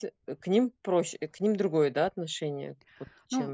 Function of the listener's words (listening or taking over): taking over